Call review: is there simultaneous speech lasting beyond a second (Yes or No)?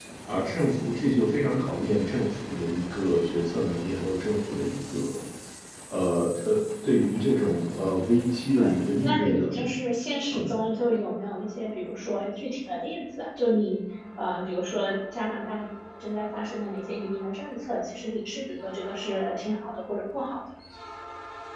Yes